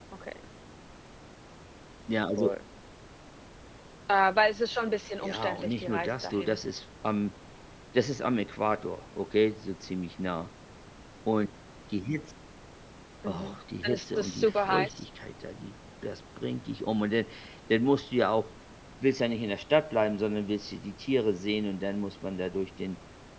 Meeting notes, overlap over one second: present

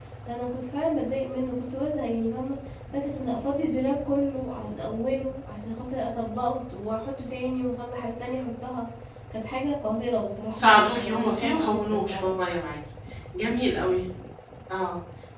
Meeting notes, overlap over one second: present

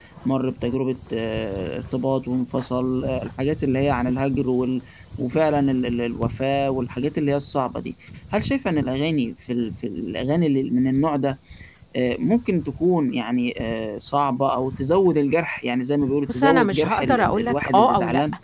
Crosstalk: present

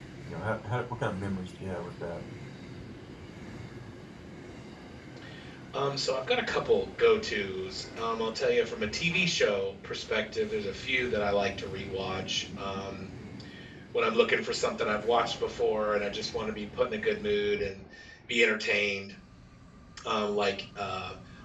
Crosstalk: none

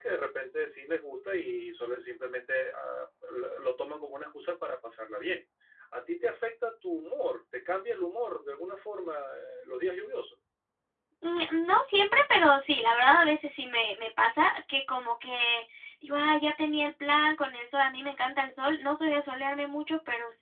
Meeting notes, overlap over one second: none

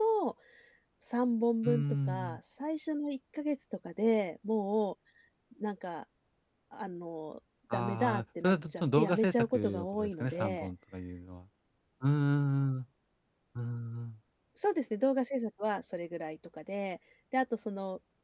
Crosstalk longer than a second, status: present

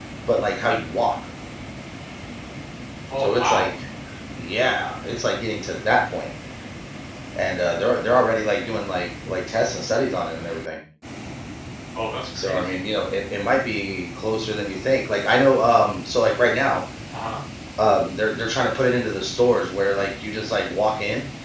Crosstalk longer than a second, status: none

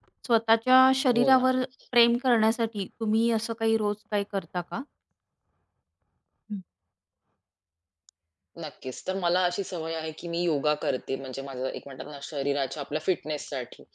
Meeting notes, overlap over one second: none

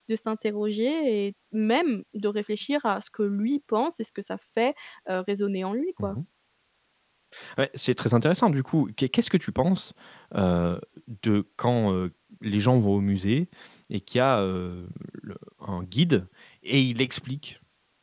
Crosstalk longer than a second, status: none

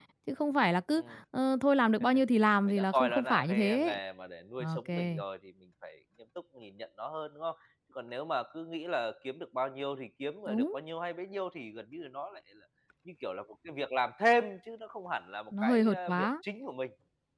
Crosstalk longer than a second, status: present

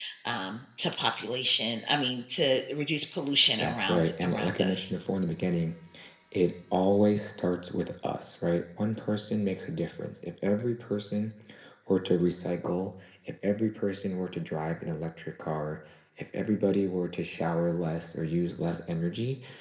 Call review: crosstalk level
present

